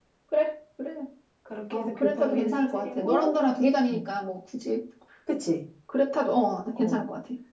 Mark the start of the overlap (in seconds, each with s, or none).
1.7 s